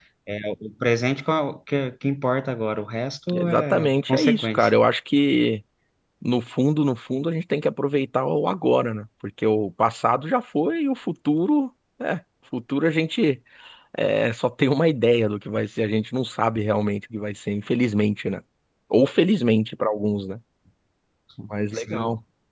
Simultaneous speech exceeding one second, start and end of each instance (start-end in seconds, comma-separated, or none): 3.3-4.7